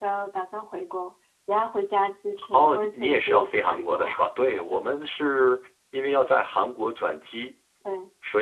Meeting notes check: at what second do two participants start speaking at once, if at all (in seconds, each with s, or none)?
2.4 s